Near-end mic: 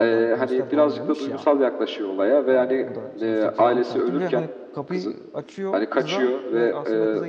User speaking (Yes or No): Yes